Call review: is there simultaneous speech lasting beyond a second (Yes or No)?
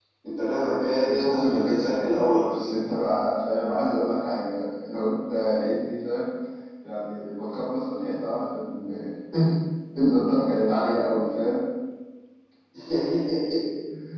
Yes